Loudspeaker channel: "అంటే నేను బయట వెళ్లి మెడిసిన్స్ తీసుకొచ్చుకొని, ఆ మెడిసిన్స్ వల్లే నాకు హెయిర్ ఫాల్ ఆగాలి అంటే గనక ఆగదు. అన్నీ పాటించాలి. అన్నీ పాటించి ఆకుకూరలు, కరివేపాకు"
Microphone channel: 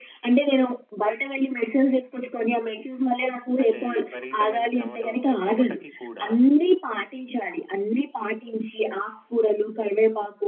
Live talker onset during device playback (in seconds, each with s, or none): 3.6 s